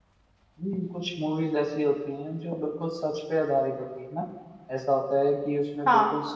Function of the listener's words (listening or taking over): listening